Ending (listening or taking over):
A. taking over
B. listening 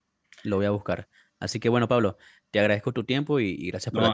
A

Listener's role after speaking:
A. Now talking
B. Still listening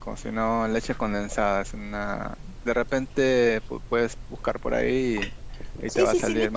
A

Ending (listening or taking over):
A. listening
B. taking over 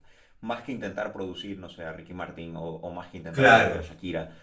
A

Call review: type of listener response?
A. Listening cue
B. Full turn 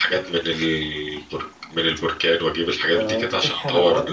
B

